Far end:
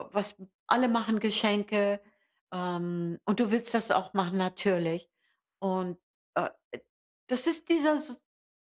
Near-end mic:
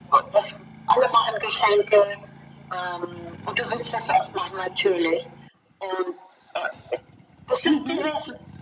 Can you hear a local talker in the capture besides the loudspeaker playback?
Yes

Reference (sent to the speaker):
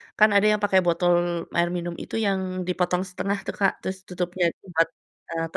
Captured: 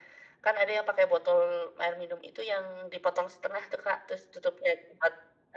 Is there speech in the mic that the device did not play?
No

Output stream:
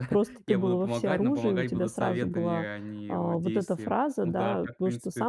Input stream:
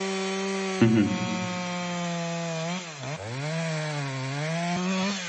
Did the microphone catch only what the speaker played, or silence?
No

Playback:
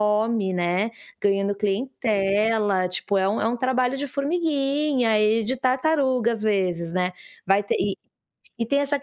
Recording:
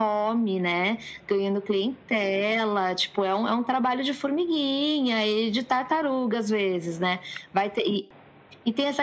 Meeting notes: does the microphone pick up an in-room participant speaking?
No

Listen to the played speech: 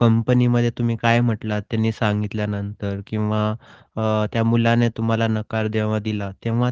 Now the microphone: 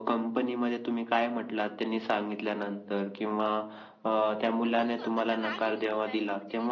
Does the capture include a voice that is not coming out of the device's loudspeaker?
Yes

